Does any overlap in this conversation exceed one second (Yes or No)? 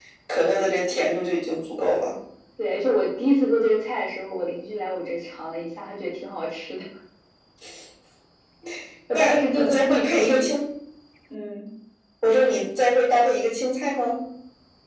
Yes